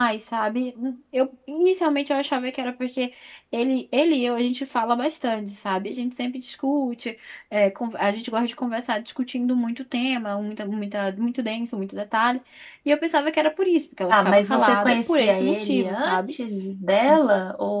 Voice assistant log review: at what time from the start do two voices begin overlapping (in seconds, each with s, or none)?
14.1 s